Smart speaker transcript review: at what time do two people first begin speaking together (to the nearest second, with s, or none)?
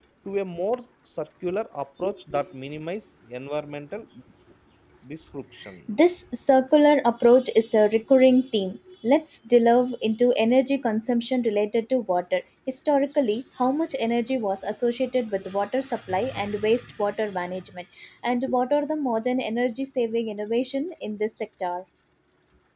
none